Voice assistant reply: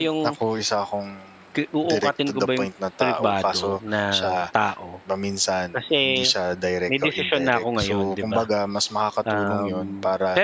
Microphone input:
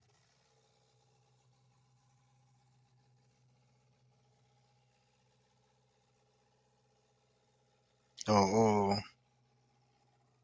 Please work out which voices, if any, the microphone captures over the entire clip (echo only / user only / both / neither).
user only